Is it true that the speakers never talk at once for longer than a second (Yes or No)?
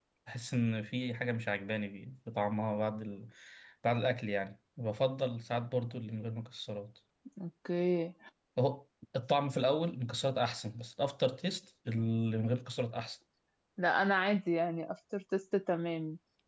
Yes